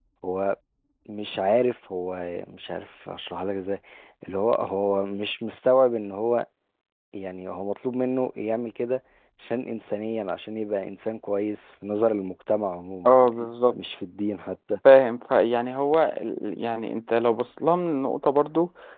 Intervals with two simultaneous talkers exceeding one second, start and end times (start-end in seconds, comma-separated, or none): none